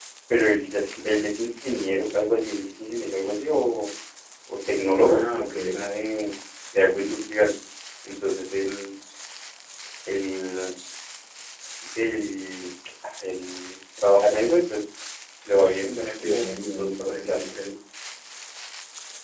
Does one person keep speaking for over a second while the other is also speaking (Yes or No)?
Yes